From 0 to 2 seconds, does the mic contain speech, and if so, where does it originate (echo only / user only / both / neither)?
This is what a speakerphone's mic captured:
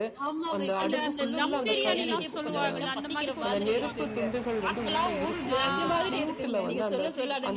both